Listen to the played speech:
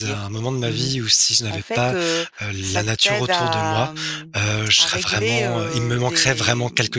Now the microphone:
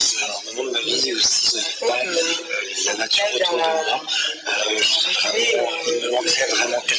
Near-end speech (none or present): none